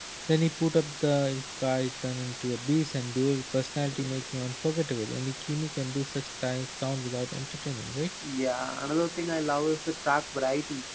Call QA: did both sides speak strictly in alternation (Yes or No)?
Yes